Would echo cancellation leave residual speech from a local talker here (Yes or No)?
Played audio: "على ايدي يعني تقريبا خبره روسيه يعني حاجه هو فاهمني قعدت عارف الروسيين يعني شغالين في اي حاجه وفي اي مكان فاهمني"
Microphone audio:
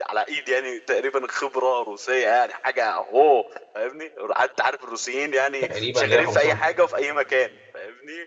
Yes